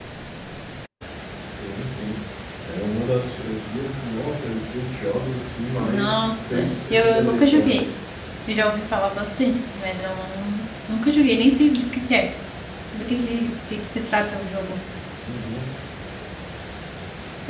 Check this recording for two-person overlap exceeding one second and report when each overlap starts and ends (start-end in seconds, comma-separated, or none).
5.8-7.8